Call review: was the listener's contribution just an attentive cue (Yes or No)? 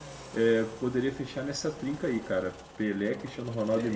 No